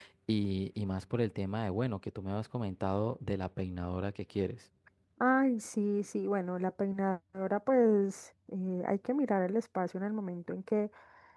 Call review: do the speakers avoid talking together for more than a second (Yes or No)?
Yes